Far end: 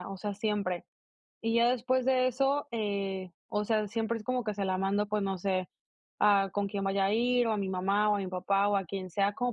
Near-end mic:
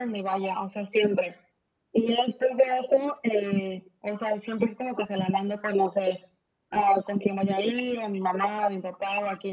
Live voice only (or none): none